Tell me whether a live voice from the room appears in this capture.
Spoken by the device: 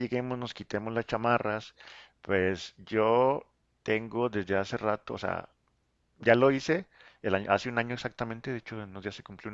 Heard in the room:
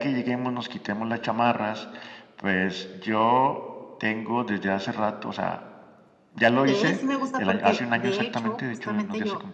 Yes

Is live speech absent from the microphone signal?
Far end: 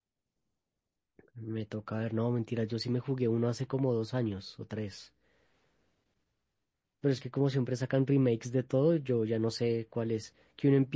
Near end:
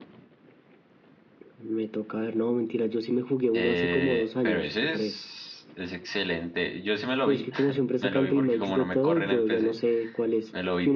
No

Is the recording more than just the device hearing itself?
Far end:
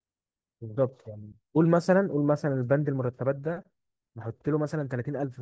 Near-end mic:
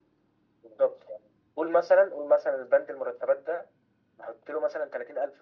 No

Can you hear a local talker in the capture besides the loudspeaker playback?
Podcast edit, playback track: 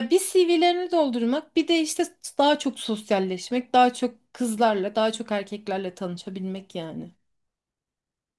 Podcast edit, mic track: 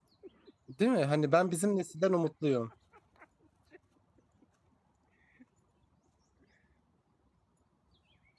Yes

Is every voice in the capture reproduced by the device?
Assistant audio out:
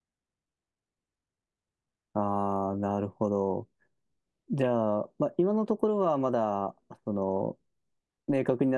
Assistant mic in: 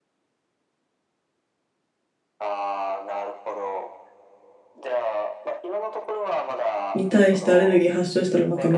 No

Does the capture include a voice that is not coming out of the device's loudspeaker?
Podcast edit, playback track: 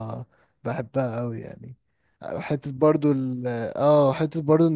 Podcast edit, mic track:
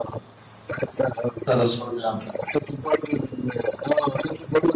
Yes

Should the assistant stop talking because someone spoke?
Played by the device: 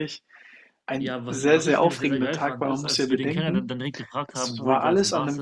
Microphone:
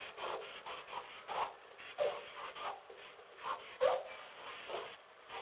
No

